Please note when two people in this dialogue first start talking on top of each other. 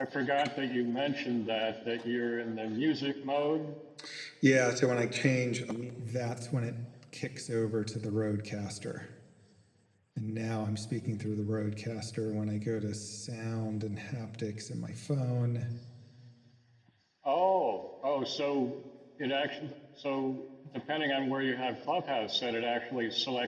none

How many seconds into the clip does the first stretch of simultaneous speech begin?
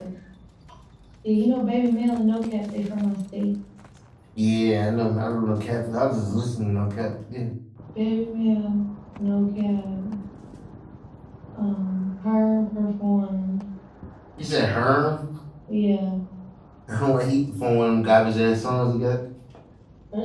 none

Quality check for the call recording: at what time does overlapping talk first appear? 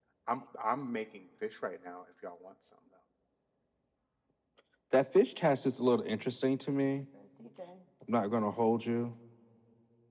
none

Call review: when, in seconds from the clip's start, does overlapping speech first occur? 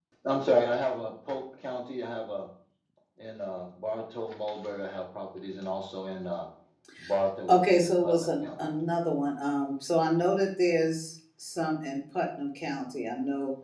7 s

